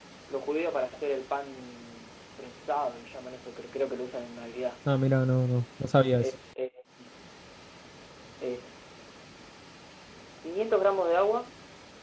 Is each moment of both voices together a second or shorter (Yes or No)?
Yes